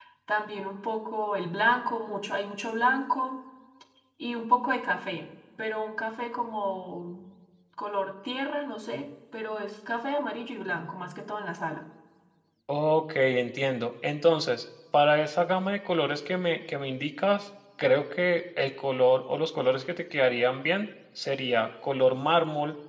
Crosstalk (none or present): none